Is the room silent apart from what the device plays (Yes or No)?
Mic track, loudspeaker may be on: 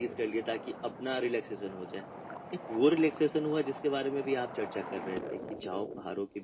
Yes